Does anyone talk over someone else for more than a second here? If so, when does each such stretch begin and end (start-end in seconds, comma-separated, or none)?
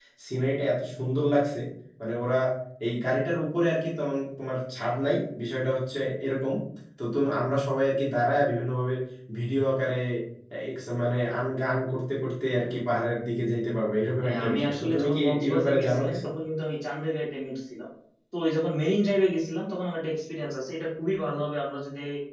14.2-16.2